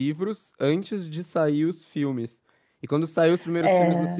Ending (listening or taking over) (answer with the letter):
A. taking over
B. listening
B